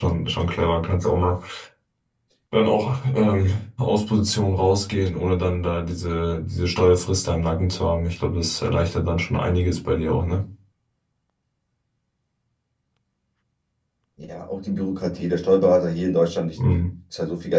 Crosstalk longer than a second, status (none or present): none